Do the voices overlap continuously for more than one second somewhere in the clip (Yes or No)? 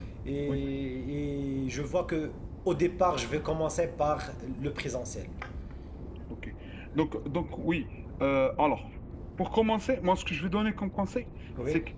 No